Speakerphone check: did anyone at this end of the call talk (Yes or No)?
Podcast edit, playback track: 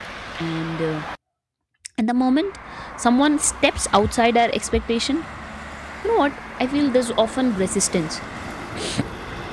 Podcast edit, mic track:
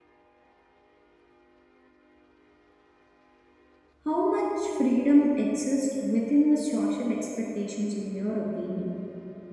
Yes